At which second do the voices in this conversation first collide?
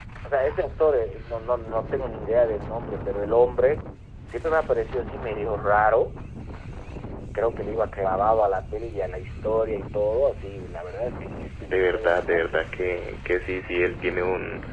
11.6 s

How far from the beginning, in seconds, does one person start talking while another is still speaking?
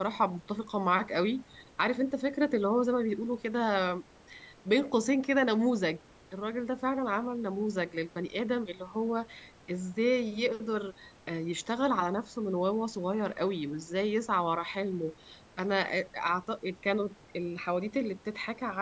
none

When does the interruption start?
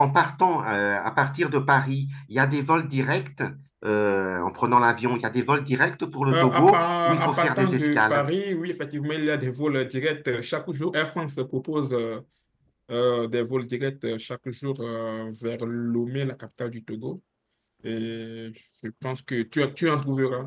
6.3 s

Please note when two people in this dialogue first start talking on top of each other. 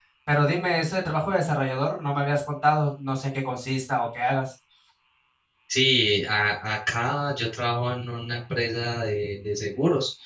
none

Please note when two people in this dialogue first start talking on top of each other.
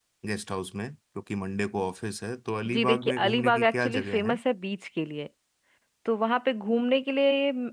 2.6 s

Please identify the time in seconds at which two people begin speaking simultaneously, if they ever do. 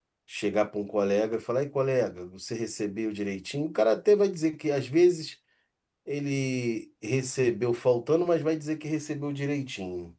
none

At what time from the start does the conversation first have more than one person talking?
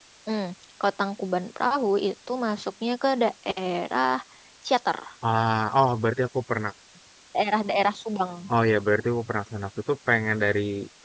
none

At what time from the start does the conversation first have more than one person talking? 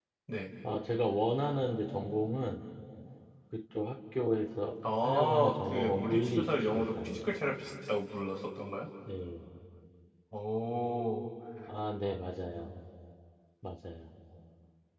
4.8 s

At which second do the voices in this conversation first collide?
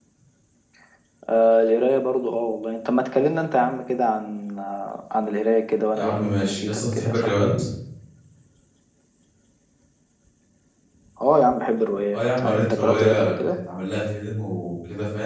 5.9 s

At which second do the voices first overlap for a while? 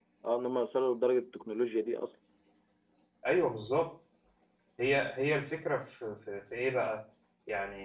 none

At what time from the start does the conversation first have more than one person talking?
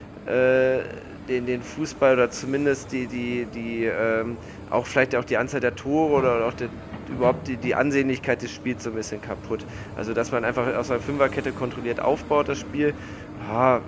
none

